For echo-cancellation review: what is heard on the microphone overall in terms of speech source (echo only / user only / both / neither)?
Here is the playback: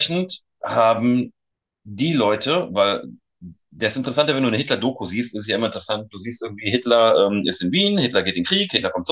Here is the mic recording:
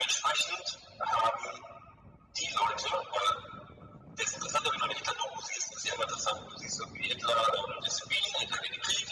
echo only